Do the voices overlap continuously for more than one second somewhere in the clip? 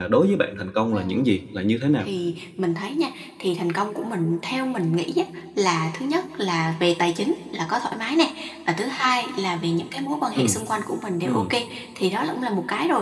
No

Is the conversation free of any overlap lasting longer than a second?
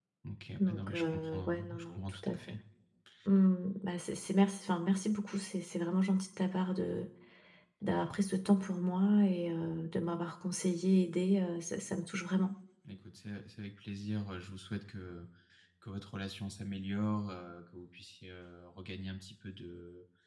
No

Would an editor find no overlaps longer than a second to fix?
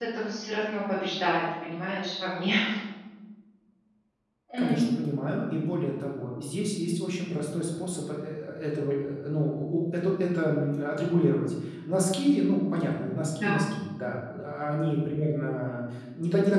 Yes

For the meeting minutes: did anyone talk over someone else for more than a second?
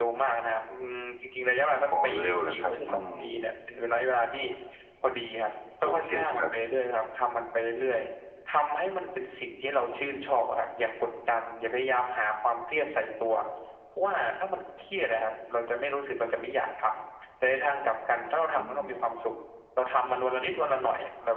Yes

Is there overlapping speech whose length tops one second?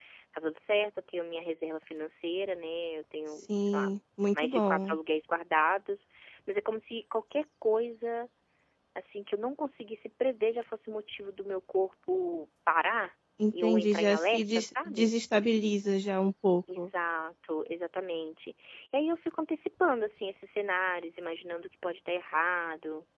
Yes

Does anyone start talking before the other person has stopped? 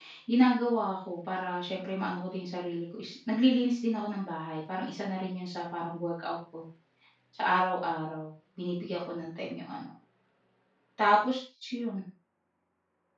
No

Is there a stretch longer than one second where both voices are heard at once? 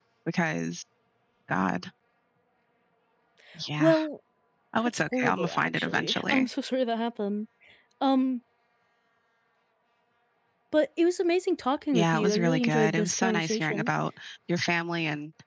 Yes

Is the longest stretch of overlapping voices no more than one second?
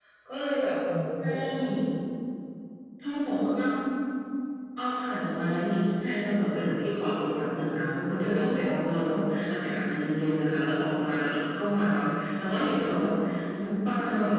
Yes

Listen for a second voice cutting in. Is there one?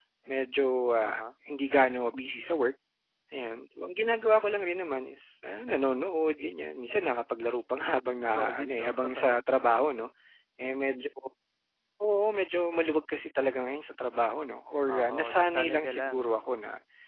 Yes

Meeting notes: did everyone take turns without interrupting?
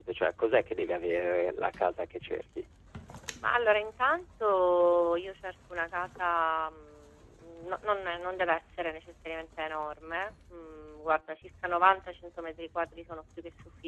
Yes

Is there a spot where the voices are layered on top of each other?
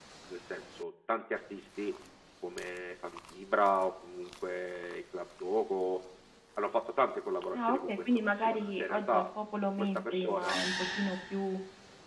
Yes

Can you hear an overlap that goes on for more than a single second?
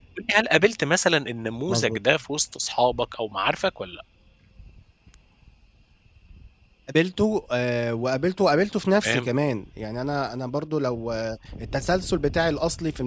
No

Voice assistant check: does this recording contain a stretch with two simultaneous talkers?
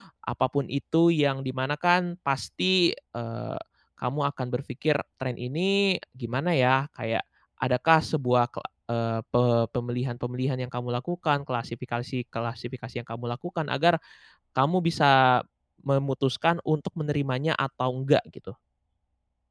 No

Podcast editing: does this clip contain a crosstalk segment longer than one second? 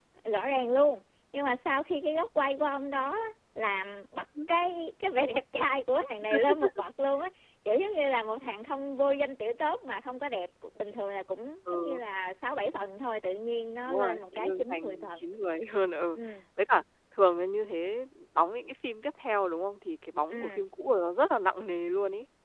Yes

